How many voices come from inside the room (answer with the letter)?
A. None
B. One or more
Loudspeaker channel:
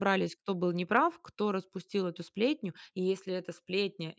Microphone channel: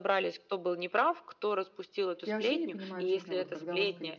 B